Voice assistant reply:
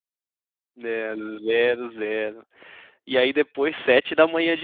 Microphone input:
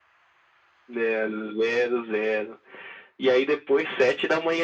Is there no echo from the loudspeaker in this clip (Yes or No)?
No